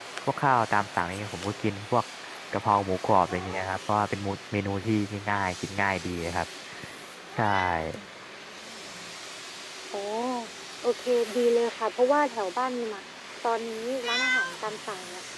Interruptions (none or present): none